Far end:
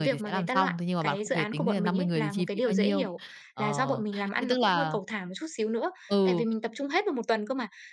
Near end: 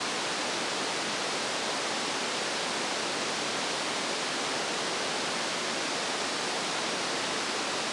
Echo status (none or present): none